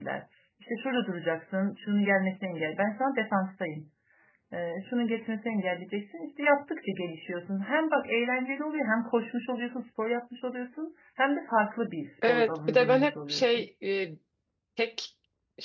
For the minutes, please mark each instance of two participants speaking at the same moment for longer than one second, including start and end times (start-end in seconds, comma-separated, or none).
12.3-13.7